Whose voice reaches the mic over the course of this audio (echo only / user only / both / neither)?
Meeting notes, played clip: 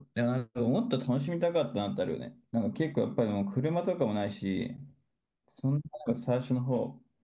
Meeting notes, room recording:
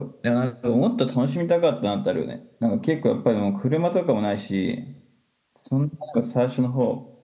echo only